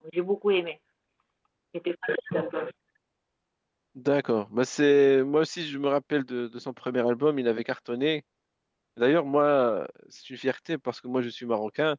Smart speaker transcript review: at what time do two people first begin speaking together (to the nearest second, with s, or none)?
none